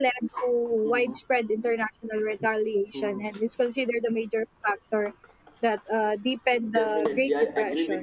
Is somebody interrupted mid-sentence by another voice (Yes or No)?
Yes